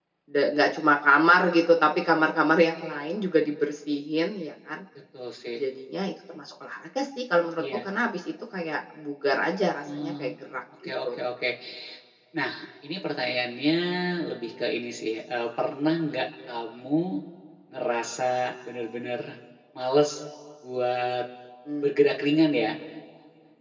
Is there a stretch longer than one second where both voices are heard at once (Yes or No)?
No